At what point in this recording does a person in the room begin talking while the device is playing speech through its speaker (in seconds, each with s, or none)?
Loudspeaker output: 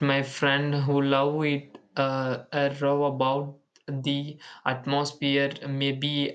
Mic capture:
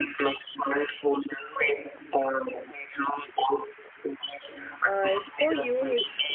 4.9 s